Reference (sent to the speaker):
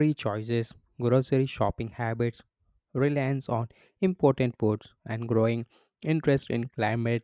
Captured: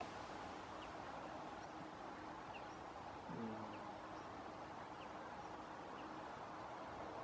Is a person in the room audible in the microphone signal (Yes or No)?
No